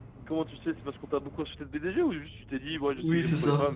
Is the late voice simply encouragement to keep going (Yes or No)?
No